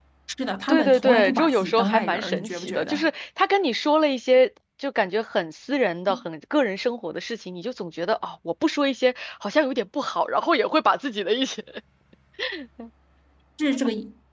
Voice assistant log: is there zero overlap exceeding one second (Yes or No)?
No